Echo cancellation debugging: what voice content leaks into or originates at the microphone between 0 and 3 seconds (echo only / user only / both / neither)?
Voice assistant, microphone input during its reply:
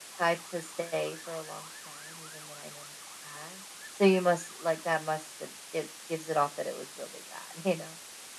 echo only